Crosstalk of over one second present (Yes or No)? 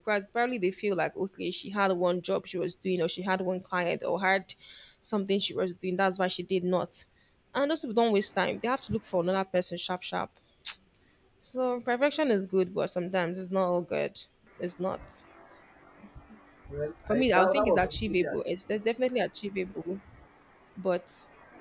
Yes